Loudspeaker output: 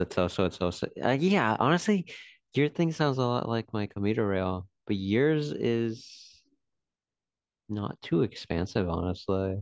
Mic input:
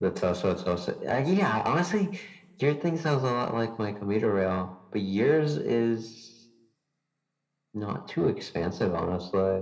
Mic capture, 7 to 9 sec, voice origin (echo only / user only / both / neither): echo only